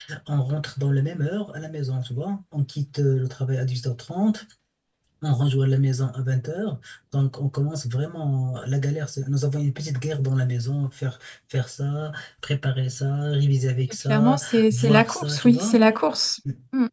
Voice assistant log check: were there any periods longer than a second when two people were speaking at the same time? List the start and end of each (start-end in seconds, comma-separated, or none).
14.1-15.8